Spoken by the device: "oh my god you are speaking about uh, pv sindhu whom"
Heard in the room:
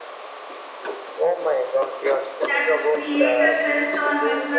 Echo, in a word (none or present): present